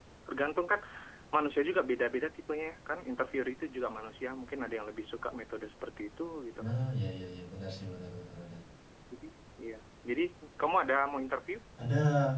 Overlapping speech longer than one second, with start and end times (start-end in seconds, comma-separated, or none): none